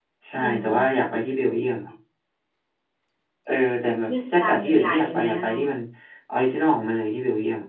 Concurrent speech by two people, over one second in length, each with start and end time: 4.1-5.6

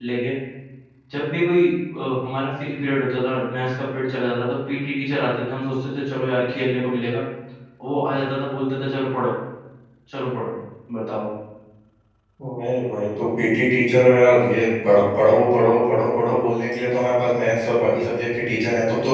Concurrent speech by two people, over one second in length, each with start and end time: none

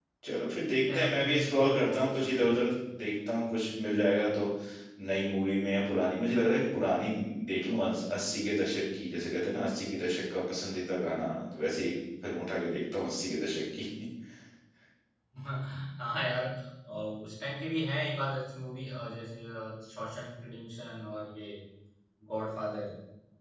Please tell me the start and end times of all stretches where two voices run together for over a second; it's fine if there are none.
0.8-2.6

